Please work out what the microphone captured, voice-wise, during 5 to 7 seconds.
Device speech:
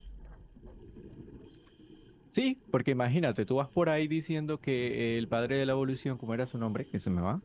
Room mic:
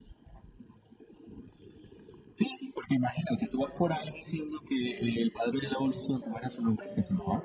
both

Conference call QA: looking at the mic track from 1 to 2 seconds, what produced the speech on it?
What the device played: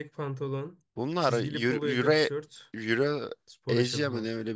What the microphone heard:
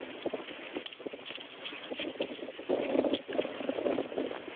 neither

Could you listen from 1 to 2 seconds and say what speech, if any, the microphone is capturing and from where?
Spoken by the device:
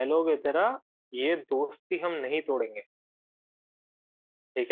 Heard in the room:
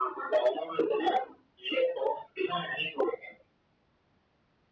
echo only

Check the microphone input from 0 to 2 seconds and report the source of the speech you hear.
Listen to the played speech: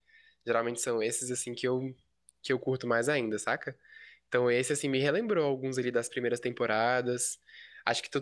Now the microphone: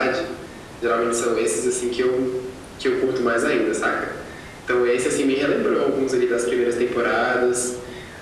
echo only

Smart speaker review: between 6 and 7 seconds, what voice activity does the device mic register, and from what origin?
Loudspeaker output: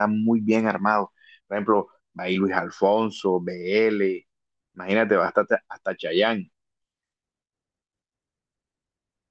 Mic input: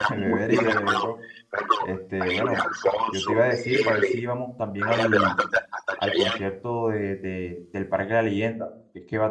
both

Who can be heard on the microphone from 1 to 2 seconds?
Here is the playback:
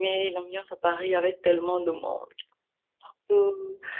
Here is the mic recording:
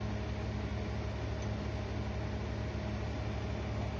neither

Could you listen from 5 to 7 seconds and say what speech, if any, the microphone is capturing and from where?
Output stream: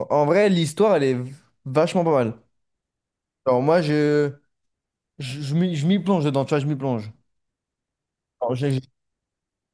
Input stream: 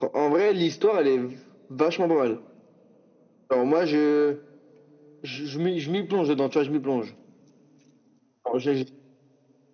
echo only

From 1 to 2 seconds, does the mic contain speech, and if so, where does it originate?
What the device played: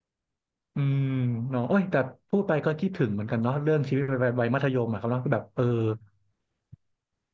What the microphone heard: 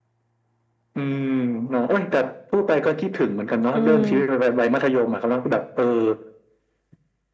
echo only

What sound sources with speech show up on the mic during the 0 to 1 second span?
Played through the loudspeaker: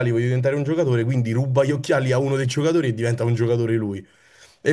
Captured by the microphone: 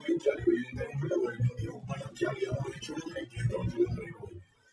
echo only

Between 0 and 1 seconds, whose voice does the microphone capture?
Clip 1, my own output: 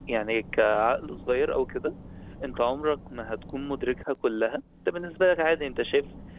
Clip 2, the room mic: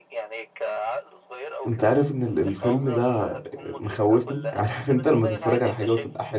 echo only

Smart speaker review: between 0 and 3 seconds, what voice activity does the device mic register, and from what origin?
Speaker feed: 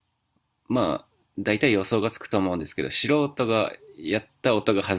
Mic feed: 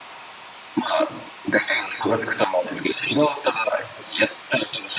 echo only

